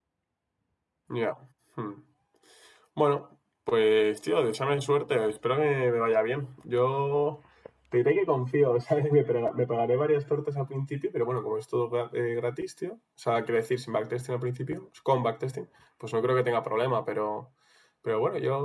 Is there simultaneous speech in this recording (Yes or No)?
No